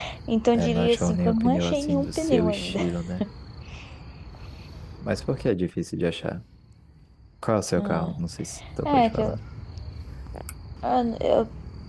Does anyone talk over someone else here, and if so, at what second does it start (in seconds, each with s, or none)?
0.5 s